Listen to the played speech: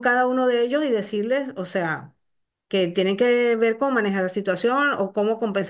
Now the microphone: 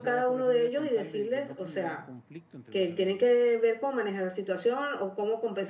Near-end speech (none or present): present